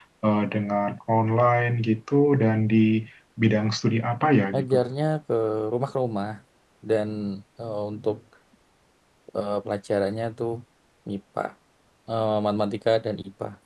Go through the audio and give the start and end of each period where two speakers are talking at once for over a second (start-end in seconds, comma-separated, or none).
none